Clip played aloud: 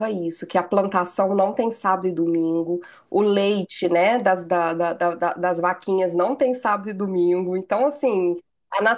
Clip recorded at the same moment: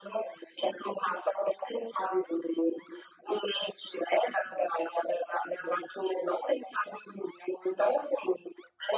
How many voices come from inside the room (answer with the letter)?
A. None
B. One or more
A